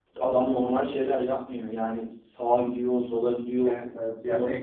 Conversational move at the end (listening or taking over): taking over